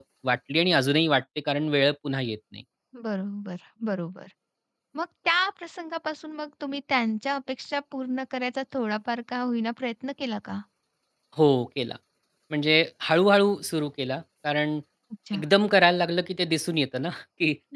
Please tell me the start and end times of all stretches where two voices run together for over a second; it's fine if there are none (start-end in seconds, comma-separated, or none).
none